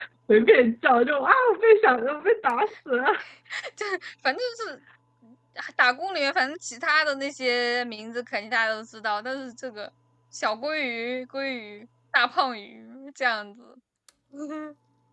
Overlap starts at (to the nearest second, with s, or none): none